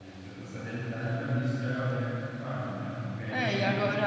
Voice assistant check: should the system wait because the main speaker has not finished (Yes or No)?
No